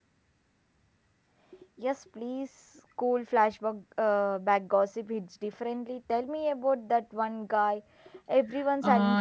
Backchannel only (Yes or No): No